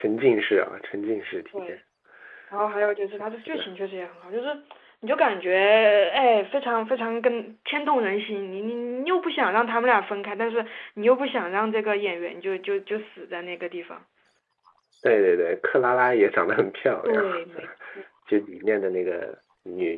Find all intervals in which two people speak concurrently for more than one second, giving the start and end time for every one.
none

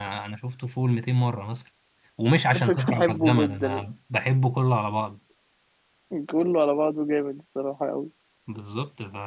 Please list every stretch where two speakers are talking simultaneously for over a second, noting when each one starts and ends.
2.5-3.9

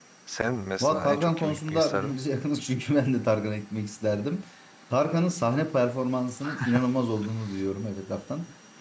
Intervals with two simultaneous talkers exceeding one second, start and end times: 0.8-2.1

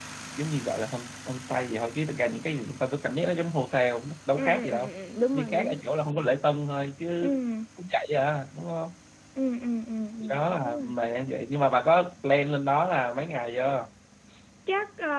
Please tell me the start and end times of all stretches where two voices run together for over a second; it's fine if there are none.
none

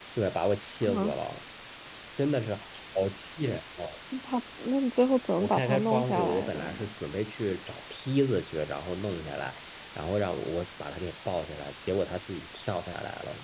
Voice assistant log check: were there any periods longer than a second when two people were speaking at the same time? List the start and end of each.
5.4-6.9

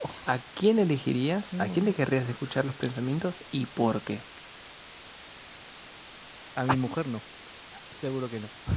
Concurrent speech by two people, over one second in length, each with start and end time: none

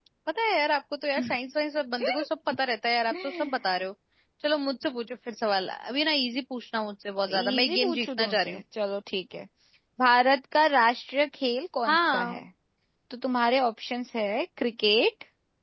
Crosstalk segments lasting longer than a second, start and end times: 7.3-8.6

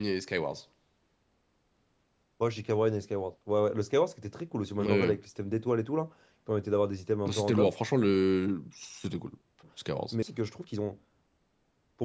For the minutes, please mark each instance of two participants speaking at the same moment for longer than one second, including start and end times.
none

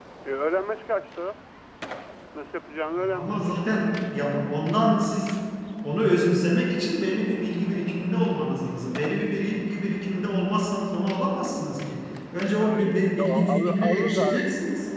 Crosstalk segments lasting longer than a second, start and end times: 12.6-14.4

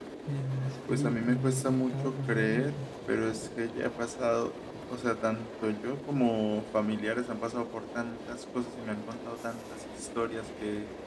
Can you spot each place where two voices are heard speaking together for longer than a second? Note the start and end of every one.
0.9-2.8

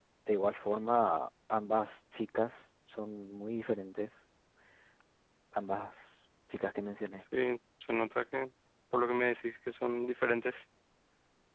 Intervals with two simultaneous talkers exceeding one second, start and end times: none

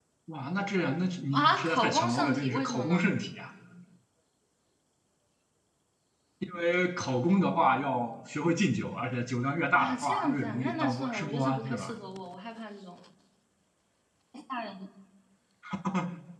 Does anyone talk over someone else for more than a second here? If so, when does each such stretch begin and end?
1.3-3.1, 9.8-11.9

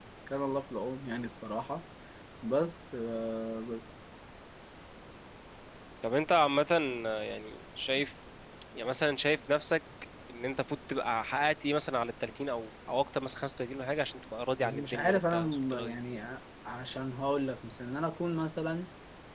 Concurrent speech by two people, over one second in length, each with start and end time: 14.6-15.9

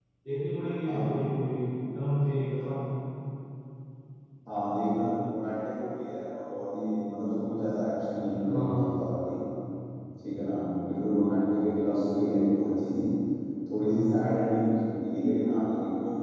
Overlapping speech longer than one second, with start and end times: none

